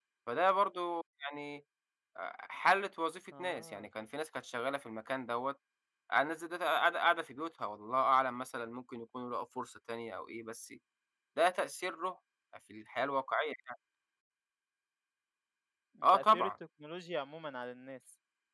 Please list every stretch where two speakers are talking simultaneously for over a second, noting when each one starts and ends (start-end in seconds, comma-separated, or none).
none